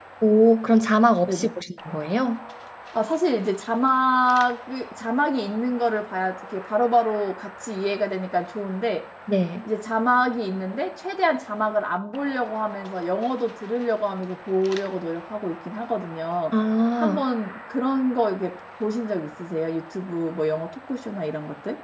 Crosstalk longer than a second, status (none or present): none